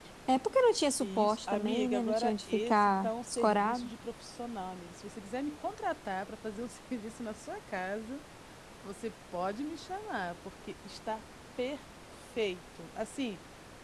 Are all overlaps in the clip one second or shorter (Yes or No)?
No